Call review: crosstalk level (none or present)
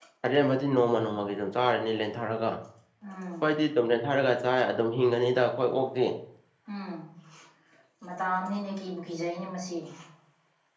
none